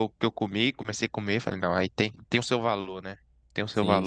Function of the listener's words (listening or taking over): taking over